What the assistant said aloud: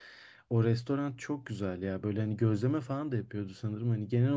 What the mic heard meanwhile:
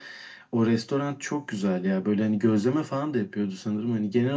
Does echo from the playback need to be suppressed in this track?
Yes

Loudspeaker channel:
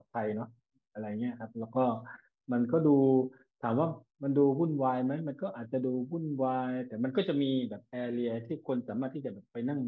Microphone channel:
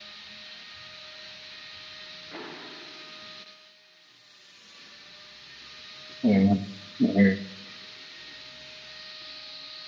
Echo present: No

